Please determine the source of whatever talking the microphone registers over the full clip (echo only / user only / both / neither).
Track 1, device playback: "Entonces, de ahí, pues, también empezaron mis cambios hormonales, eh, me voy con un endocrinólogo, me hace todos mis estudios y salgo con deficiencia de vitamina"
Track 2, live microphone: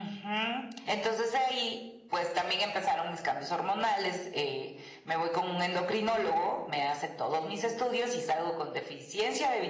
echo only